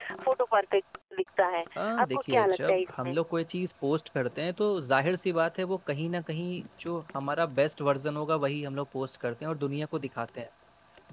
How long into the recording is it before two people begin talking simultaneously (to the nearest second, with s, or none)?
2 s